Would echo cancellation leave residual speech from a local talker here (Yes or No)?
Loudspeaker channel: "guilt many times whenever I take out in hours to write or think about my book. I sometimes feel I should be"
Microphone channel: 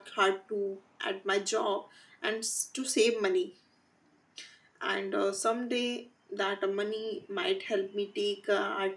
Yes